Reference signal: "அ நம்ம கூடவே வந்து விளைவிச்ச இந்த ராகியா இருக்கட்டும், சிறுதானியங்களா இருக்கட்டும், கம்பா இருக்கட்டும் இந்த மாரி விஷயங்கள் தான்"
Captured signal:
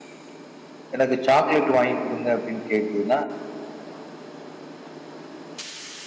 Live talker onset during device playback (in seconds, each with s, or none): 0.9 s